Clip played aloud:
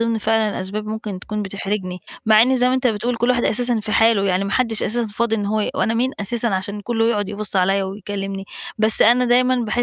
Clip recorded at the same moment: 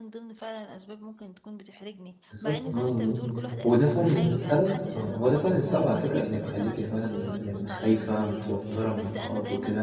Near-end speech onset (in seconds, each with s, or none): 2.3 s